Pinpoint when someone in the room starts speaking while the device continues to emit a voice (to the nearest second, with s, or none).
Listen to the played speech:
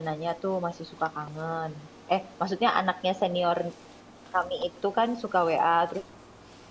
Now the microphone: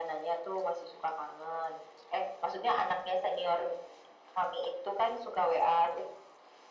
none